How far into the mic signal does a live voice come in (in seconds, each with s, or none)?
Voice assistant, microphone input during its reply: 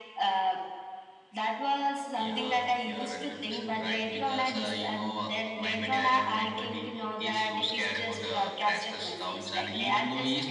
none